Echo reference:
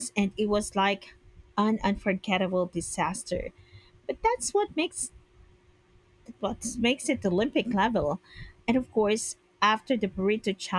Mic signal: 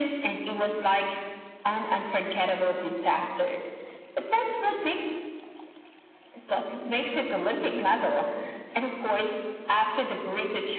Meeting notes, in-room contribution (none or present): none